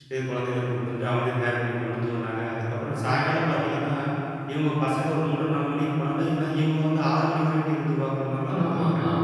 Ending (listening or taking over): taking over